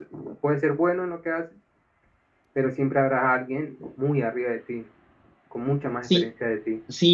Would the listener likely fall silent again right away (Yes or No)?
No